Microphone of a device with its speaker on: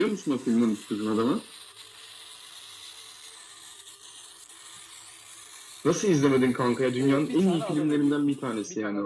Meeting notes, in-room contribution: present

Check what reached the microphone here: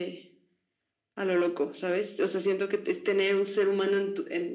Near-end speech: none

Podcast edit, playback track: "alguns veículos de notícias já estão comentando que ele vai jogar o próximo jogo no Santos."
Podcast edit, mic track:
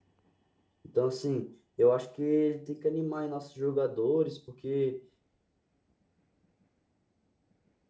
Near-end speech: present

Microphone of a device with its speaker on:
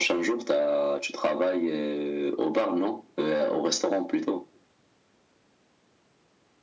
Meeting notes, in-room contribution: none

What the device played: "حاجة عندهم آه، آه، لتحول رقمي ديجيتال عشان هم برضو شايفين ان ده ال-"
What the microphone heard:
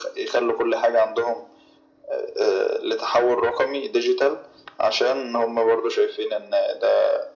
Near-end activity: none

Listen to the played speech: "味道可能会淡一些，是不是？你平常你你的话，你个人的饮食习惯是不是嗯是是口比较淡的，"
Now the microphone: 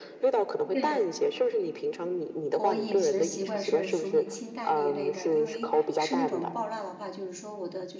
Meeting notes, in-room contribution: present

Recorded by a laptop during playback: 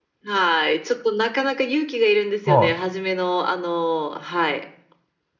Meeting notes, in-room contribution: present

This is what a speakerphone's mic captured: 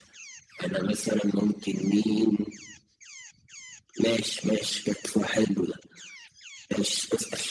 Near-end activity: none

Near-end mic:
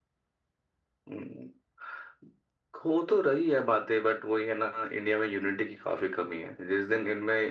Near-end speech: none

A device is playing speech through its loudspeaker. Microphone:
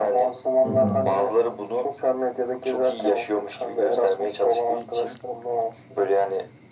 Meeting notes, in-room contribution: present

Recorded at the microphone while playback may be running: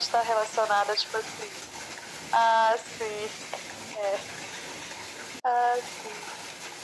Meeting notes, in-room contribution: none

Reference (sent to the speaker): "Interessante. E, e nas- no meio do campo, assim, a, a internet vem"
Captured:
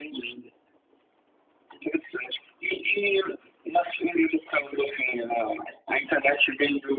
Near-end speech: none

